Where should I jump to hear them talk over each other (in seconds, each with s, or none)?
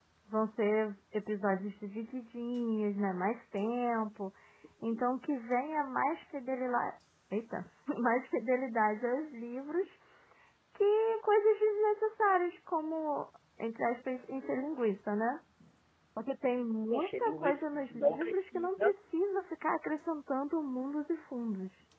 16.9 s